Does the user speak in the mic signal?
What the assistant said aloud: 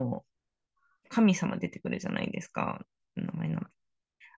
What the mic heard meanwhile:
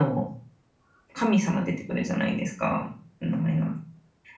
No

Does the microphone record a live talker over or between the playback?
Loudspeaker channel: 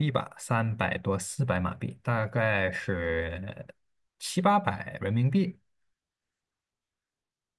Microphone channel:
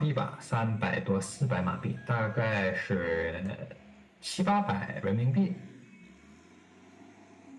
No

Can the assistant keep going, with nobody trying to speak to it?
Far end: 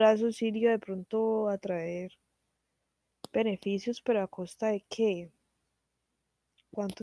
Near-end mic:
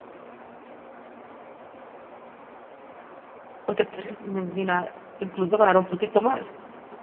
No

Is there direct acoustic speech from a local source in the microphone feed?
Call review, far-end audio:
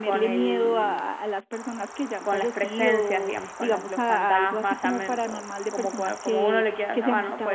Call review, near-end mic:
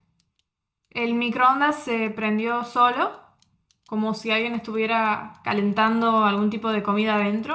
Yes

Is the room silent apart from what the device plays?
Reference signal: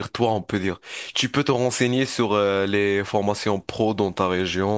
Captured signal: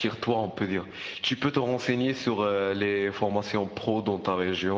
Yes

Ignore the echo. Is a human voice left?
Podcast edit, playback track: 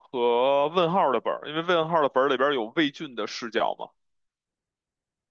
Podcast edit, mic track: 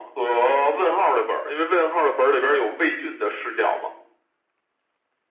No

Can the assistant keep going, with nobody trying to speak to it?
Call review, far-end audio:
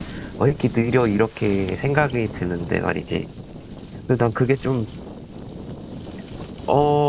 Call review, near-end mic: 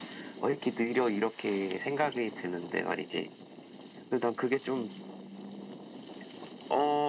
No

